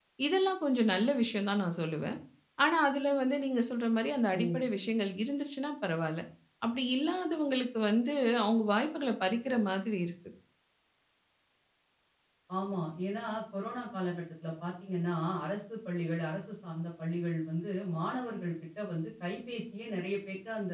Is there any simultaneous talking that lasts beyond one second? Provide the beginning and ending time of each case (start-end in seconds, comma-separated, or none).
none